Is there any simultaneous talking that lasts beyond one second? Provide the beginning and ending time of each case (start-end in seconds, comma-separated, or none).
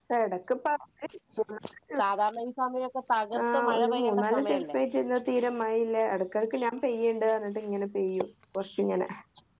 3.5-4.8